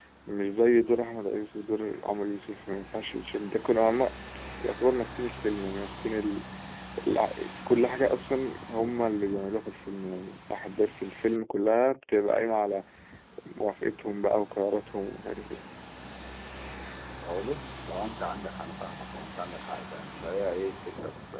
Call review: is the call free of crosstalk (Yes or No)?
Yes